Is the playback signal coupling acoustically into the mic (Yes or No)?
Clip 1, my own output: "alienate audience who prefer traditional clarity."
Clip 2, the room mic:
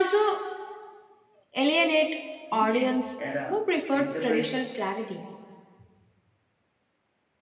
Yes